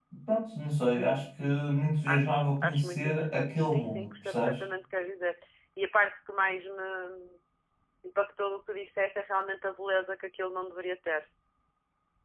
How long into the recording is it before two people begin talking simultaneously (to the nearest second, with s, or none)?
2 s